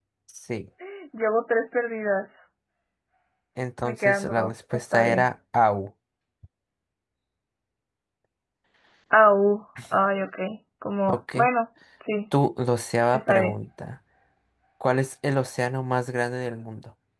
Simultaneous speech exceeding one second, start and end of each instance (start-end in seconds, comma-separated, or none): 3.8-5.2